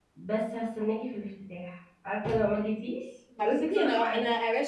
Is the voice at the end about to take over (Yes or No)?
Yes